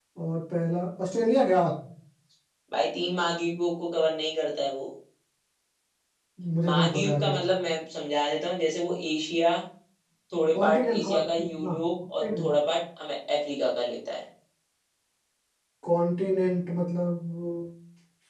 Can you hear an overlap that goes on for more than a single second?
Yes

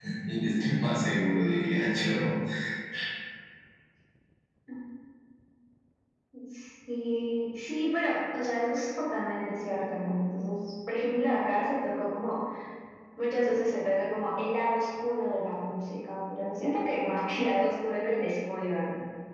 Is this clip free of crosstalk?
Yes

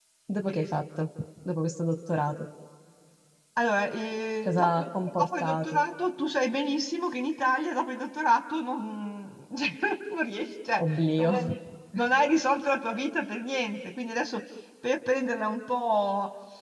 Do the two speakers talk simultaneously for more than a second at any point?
Yes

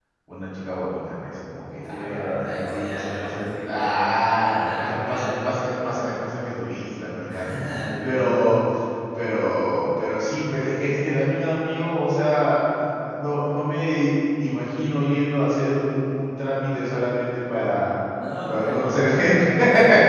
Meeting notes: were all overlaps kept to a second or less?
No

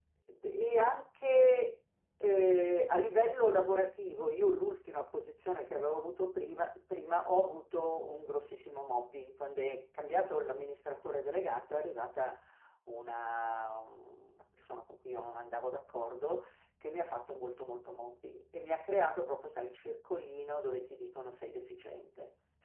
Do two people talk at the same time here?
No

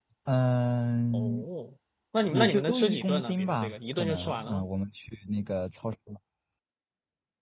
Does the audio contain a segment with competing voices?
Yes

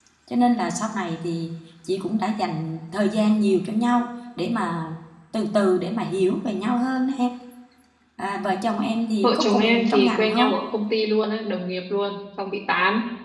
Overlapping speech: Yes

